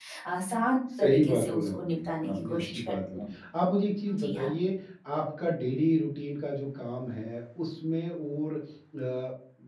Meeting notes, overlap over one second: present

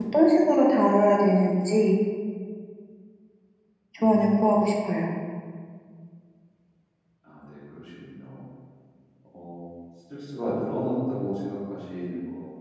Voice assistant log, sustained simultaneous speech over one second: none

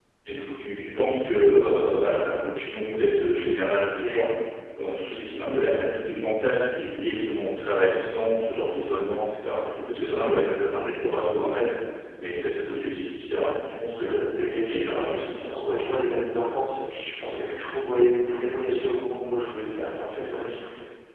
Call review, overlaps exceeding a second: present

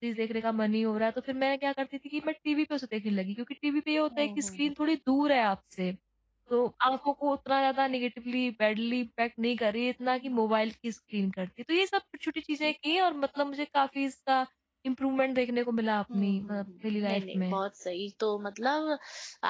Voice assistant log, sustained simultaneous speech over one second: present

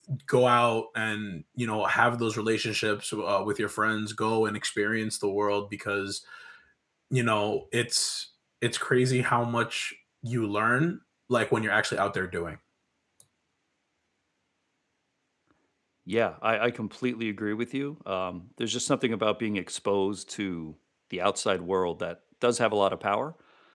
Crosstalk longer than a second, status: none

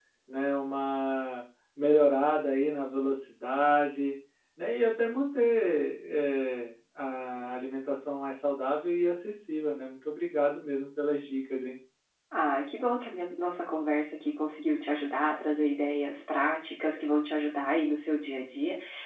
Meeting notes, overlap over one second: none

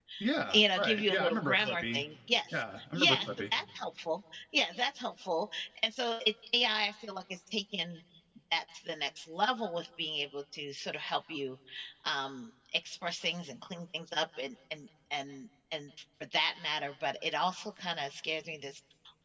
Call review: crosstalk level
present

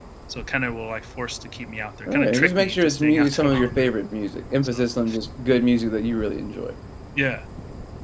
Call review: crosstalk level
present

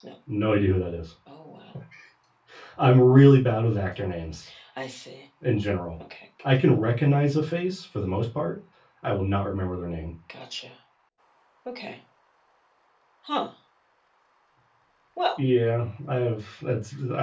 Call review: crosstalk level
none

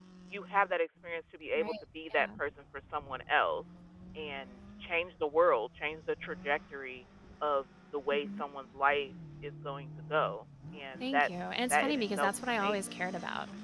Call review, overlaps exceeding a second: present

